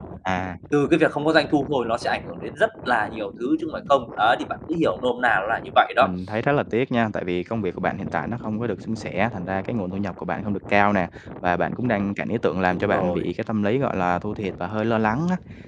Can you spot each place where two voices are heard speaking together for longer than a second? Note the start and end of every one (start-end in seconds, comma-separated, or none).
none